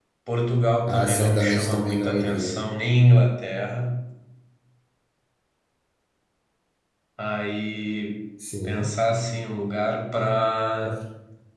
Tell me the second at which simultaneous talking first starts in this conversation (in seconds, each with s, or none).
0.9 s